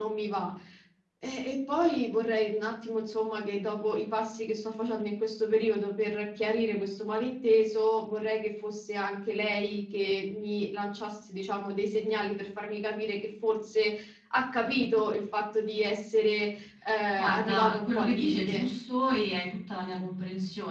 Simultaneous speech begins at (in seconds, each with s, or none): 17.2 s